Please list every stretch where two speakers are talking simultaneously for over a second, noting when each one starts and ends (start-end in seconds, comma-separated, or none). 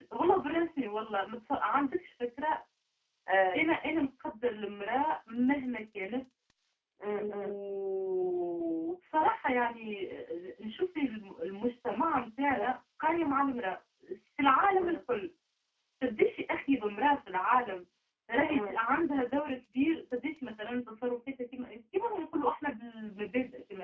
none